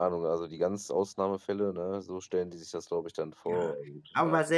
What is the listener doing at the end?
taking over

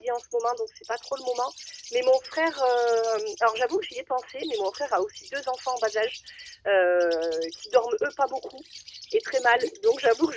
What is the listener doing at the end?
listening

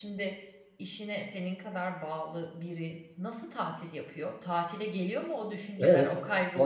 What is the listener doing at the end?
taking over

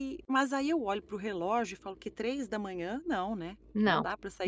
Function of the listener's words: taking over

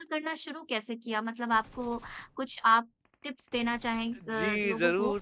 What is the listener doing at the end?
taking over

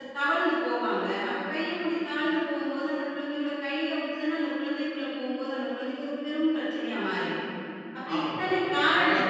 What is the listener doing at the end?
taking over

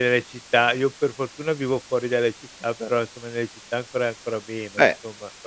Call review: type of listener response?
taking over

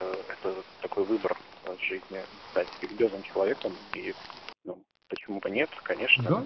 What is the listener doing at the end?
taking over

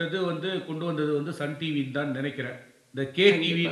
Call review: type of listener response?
taking over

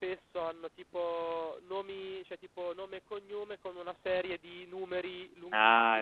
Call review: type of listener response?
taking over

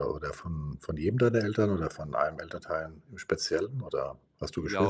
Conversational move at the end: taking over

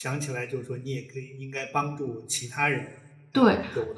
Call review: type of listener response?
taking over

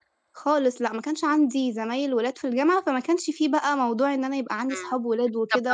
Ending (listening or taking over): taking over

